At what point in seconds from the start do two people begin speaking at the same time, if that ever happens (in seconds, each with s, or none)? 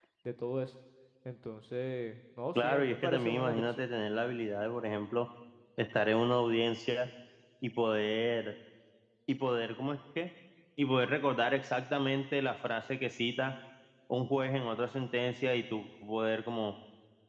2.5 s